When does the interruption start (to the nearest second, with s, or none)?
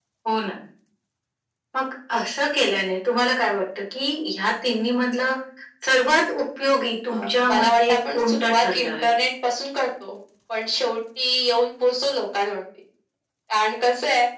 7 s